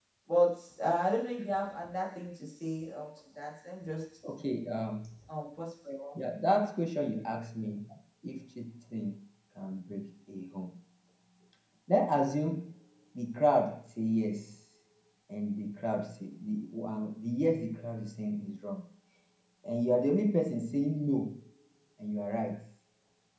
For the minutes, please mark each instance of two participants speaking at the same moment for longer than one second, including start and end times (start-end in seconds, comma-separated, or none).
none